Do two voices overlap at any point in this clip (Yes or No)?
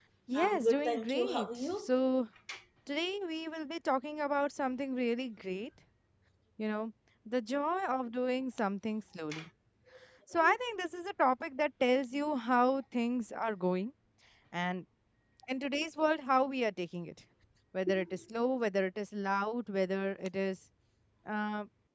Yes